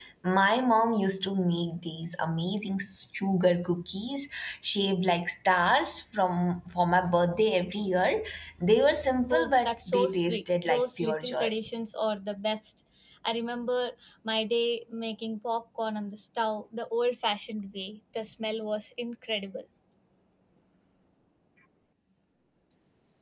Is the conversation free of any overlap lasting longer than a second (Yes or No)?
No